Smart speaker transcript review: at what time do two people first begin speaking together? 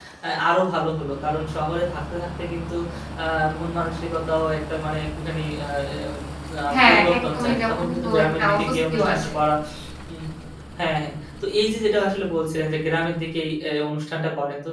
6.7 s

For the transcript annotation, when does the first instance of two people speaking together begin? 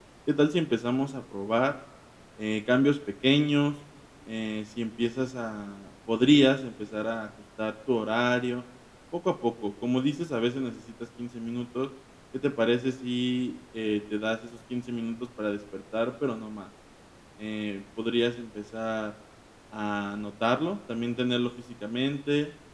none

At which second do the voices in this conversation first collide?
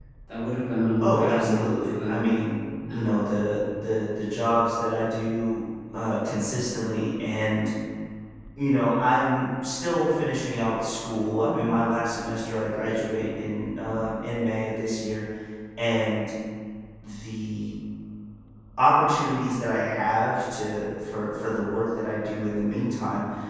1.0 s

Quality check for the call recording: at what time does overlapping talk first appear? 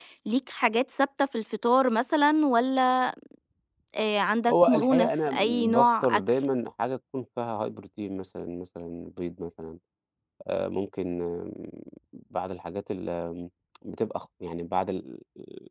4.5 s

